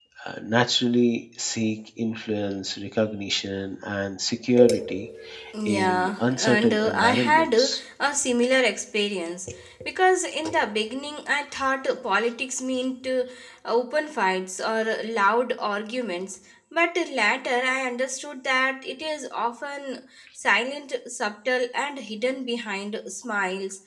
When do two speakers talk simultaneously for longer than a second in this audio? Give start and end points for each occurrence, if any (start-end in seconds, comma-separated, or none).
5.7-7.8